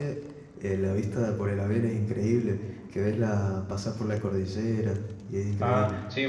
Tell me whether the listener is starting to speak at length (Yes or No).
Yes